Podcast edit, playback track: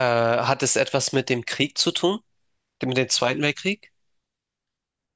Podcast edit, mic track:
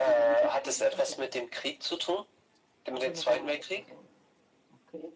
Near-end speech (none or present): present